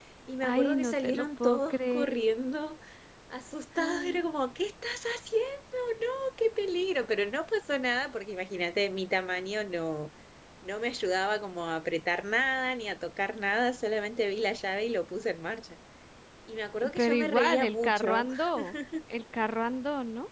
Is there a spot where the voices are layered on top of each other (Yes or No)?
Yes